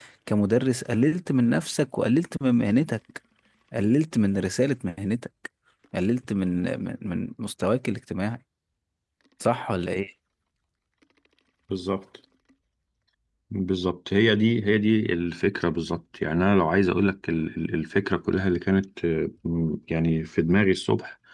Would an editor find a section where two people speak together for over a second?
No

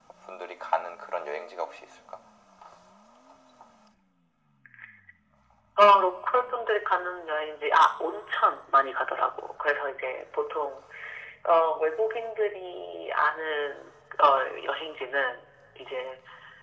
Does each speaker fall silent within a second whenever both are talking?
Yes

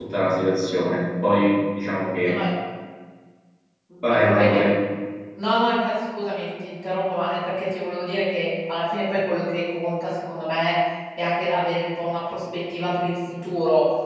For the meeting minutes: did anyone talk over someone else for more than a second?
No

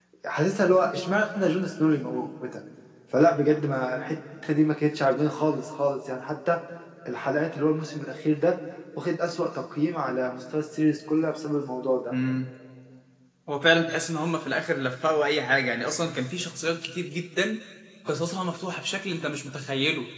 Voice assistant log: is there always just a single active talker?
Yes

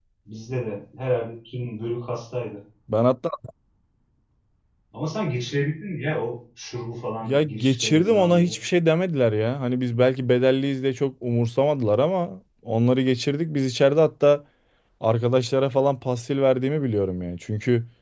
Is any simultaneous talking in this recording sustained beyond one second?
Yes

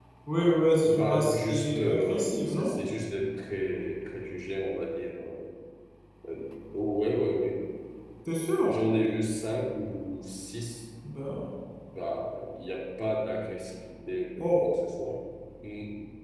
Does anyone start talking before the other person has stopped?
Yes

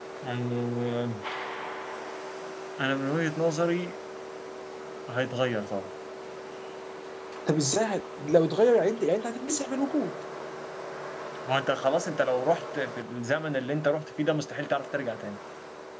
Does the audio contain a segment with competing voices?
No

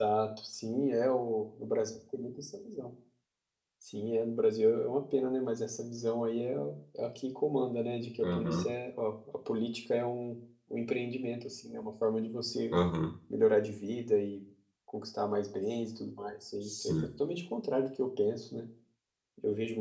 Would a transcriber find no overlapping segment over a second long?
Yes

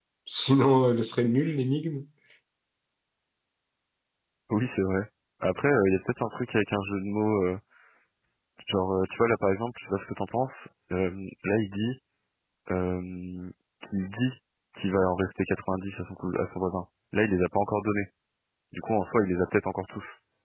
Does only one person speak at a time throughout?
Yes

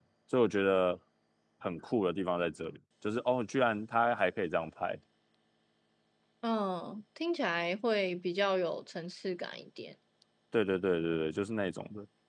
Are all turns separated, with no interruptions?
Yes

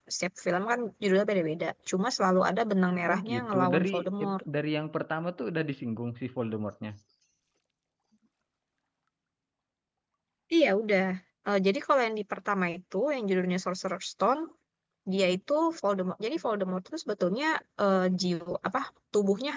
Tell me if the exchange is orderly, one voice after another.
No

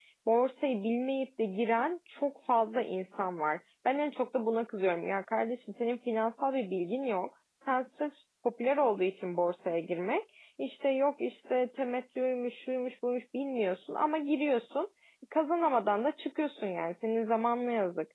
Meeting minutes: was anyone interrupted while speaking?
No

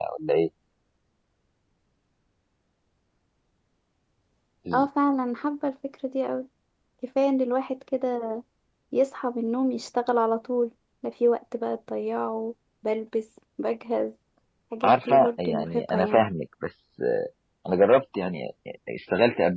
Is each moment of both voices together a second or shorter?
No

